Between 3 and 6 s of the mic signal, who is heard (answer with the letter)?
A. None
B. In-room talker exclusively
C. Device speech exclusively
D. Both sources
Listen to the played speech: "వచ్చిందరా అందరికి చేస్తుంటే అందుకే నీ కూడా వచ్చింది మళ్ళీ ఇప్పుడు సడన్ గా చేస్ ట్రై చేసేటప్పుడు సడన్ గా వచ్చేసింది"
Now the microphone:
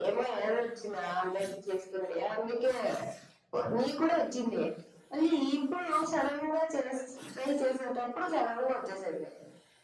C